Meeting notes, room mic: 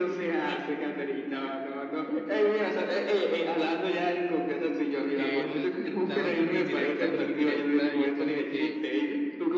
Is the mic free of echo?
No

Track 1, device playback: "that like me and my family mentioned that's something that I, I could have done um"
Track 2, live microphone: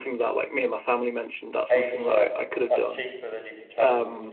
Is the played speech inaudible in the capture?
No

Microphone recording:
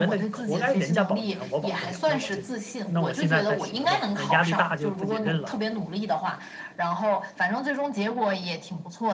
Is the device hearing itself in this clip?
Yes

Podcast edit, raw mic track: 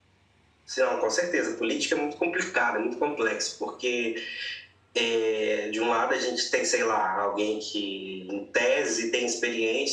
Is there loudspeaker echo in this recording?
Yes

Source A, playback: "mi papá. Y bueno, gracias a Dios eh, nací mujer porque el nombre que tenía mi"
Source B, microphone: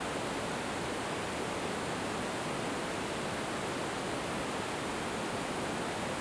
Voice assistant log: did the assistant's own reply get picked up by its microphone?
No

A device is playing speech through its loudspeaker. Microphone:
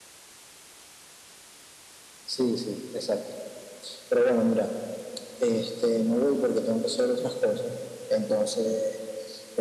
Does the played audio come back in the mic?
Yes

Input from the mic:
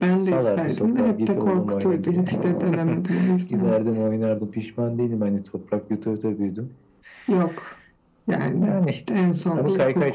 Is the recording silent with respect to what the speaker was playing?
No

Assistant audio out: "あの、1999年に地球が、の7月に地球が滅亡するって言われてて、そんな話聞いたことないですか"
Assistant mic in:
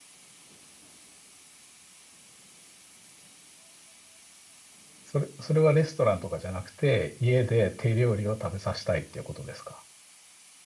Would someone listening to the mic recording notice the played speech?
No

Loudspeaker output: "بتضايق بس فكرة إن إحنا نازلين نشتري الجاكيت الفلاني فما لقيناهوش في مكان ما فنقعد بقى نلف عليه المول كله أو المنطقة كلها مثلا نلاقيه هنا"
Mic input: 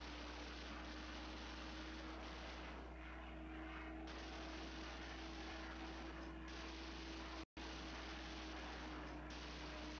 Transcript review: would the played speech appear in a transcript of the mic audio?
No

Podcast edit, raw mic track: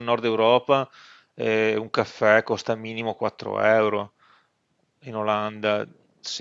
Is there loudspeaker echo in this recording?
No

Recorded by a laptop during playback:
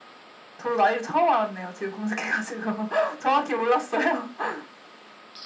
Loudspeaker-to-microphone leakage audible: Yes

